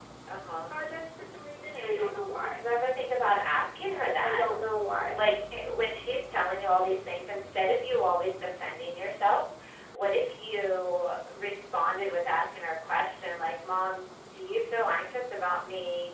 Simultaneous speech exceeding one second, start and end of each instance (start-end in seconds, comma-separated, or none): none